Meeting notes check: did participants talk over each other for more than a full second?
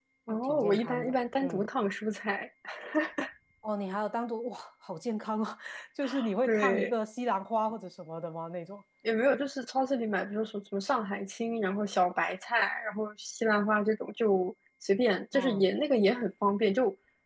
Yes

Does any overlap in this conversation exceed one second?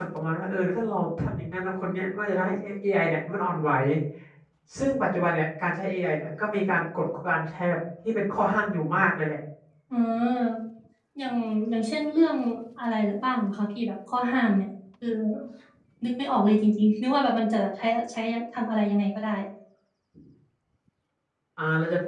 No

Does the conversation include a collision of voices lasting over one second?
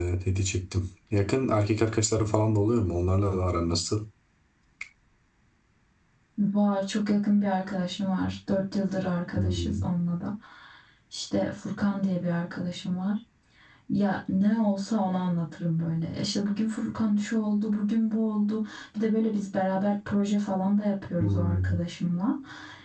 No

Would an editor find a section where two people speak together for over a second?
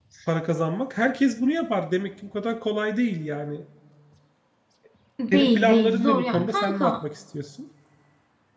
Yes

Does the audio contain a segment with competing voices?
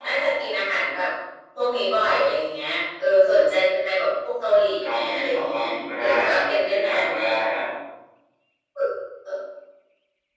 Yes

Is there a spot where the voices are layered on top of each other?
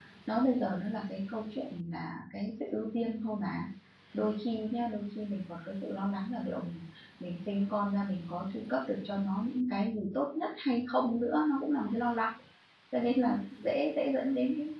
No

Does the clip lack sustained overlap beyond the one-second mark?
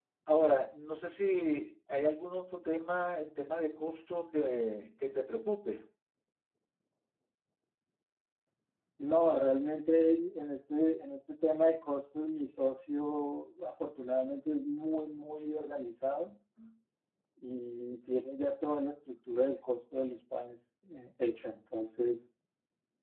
Yes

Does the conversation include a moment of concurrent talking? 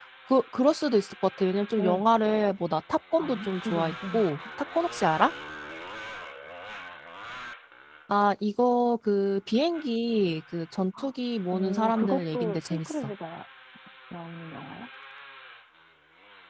Yes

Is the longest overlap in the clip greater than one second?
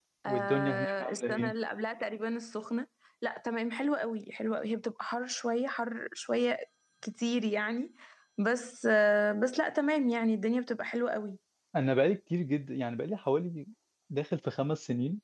Yes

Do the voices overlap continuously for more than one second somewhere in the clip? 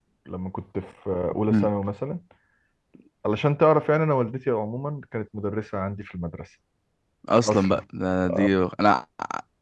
No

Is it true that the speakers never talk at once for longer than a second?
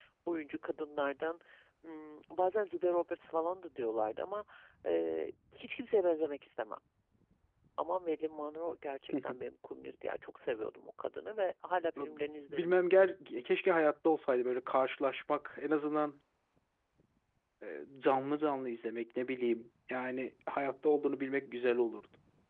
Yes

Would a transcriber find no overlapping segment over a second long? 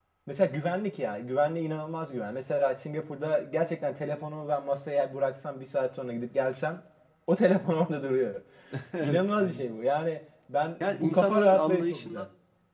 No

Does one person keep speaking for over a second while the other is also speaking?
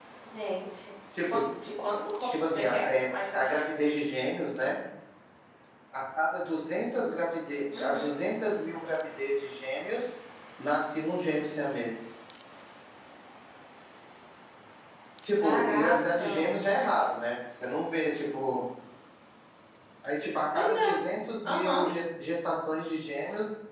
Yes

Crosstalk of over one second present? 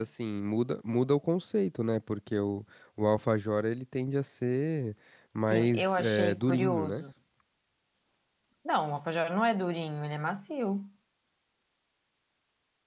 Yes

